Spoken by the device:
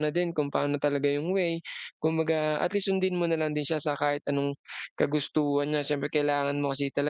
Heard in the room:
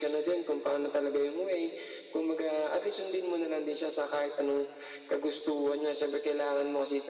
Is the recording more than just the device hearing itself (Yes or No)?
No